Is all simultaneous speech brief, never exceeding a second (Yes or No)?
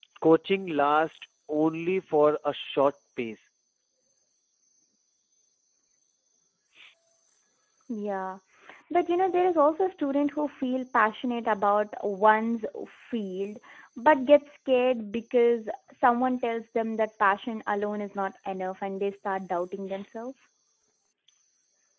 Yes